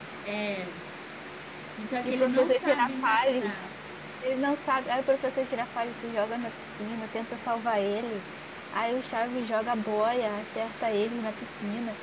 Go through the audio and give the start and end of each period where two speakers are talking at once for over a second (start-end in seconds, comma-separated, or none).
2.0-3.6